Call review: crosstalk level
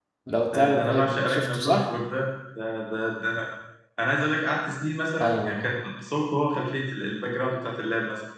present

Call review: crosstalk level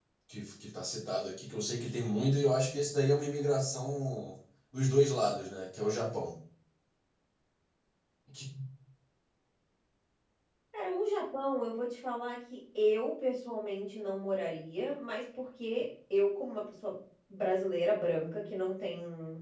none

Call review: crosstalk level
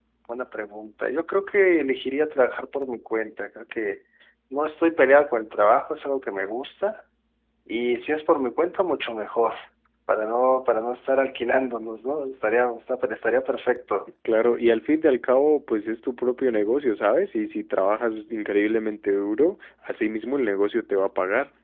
none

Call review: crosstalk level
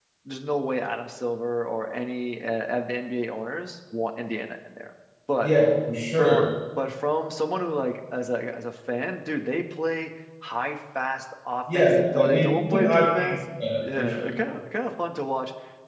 present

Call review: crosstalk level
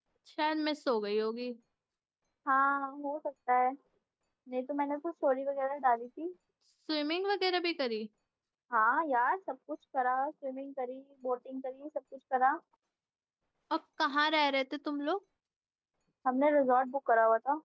none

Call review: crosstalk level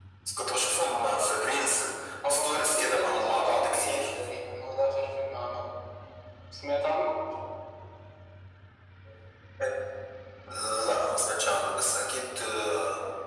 present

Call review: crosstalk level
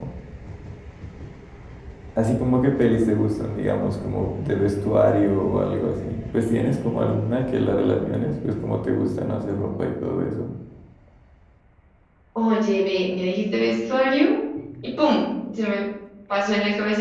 none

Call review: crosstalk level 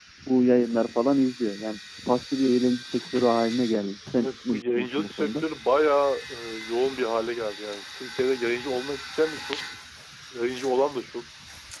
present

